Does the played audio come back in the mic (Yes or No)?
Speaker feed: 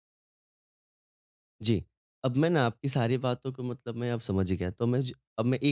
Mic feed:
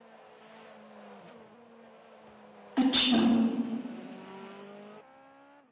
No